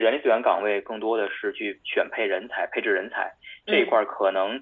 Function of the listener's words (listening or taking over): listening